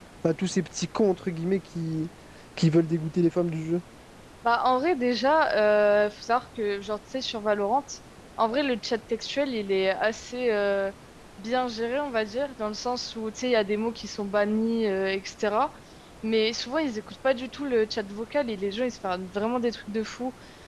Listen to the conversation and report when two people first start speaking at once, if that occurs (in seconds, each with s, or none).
none